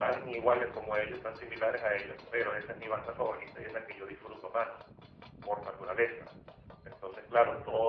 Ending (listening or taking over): listening